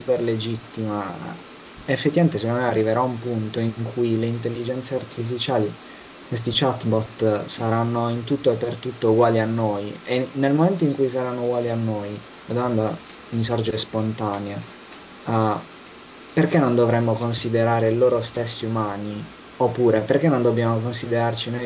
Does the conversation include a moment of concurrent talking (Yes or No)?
No